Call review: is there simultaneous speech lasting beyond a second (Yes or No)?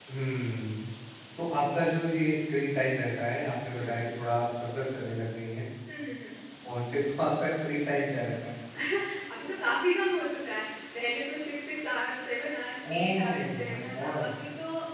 Yes